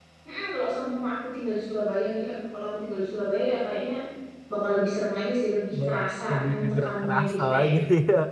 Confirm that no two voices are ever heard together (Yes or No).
No